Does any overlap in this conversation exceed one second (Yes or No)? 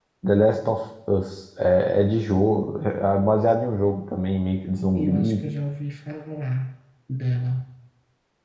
No